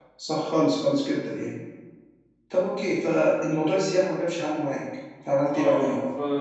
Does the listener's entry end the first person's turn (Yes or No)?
Yes